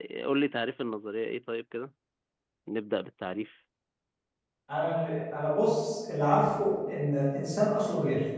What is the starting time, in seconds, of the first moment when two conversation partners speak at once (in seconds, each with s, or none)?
none